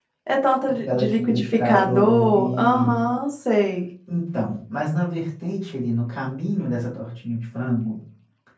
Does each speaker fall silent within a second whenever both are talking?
No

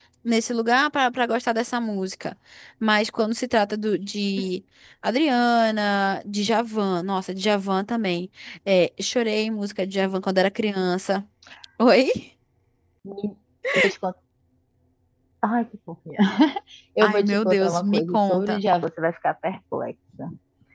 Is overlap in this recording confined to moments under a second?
No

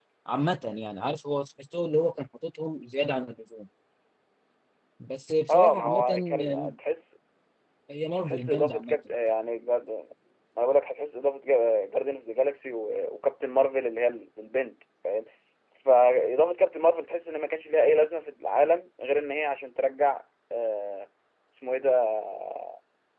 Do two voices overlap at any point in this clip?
Yes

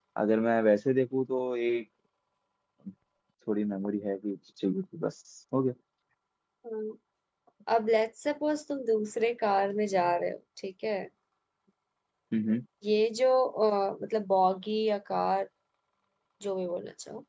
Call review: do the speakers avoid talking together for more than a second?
Yes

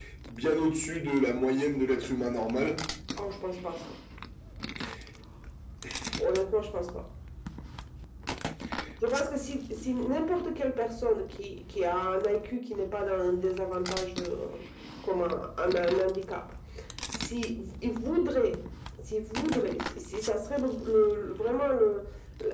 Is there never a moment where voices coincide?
Yes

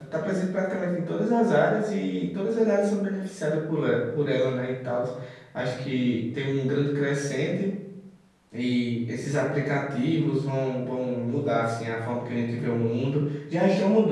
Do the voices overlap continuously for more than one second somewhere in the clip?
No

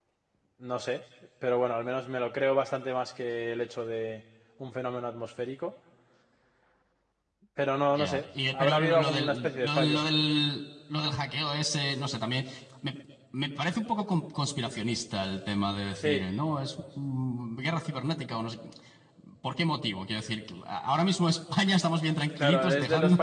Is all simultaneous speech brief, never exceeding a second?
No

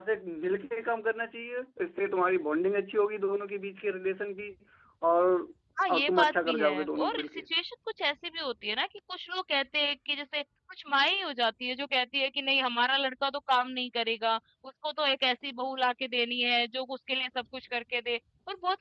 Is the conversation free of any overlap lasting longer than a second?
No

